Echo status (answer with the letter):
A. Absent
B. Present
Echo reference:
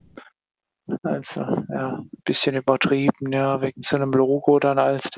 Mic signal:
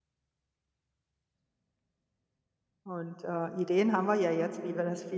A